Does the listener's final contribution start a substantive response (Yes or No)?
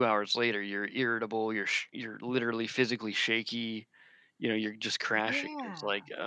No